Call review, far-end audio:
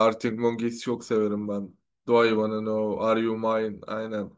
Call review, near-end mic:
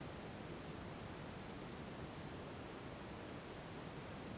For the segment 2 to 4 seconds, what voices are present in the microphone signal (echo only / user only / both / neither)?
neither